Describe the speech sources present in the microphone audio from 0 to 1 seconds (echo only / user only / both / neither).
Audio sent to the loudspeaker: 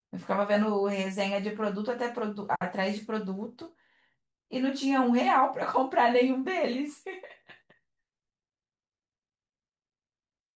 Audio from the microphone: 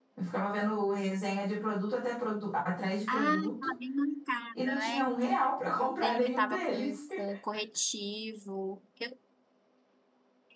echo only